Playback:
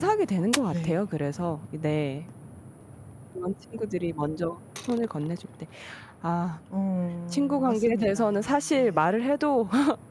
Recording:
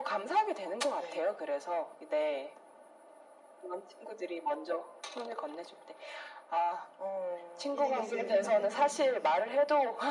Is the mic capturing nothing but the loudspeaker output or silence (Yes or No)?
No